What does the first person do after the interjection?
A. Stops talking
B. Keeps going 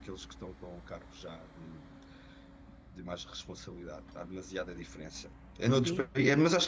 B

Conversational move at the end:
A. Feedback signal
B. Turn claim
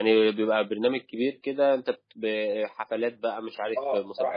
B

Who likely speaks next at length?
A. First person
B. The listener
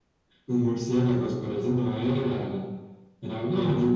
A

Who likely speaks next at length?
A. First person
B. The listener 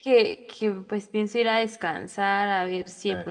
A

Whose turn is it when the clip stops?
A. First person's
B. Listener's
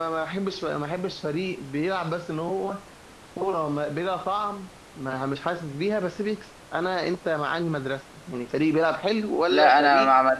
B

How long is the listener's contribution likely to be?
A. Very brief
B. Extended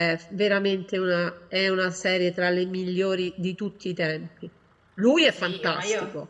B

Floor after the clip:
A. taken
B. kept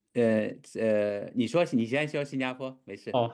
A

